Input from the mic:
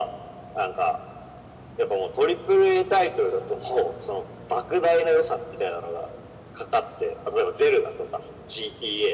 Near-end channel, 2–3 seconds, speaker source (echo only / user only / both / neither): echo only